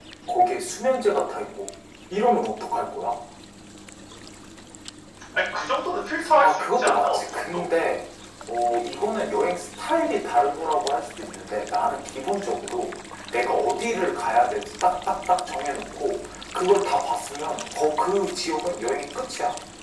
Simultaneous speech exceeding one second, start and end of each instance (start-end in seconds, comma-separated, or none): 6.4-7.6